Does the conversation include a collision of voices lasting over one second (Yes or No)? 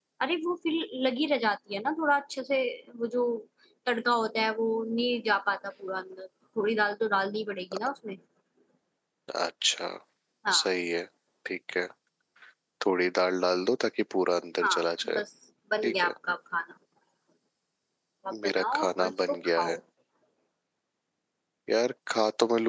Yes